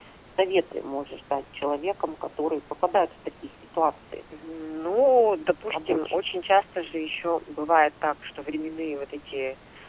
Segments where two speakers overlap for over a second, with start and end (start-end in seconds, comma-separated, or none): none